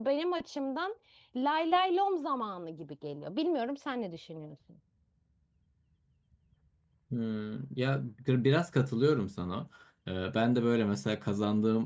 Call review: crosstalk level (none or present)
none